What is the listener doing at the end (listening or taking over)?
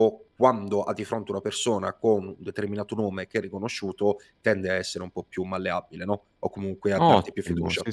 taking over